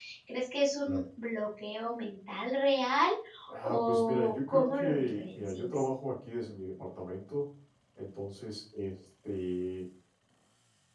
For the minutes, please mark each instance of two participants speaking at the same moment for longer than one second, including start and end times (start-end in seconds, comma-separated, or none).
3.6-5.7